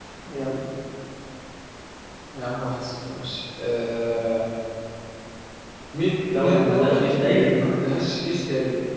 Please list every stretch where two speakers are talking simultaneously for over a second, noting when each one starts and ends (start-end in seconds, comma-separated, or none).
6.3-7.6